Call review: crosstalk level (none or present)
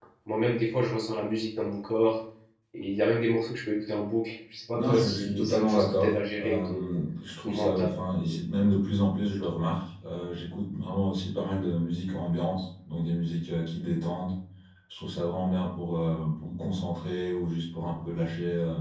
present